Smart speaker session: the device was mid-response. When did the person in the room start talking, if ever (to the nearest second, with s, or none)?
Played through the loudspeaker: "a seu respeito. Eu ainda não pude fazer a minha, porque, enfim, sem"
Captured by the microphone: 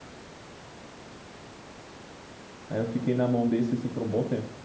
3 s